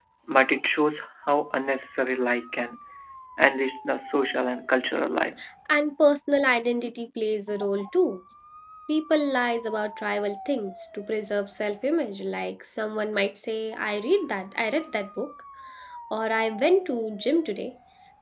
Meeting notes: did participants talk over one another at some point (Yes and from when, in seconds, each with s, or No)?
No